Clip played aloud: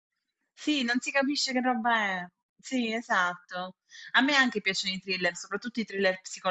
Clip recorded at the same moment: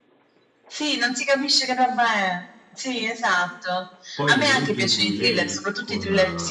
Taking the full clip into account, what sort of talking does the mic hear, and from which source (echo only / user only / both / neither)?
both